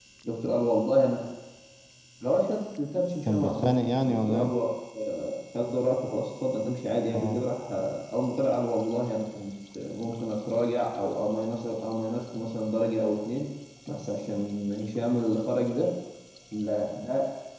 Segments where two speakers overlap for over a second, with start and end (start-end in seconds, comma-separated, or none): 3.2-4.5